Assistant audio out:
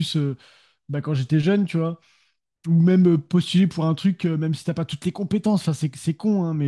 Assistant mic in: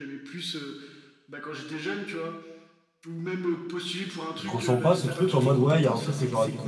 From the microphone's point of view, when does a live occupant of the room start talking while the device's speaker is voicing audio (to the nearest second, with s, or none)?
4 s